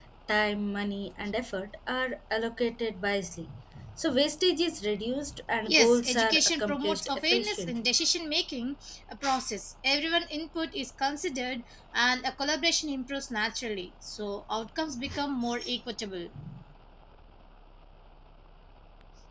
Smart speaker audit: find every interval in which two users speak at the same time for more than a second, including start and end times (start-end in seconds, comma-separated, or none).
5.7-7.9